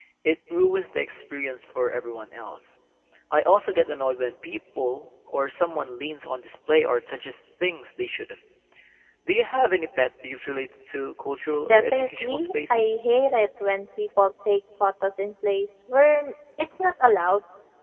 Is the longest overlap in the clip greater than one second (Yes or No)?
Yes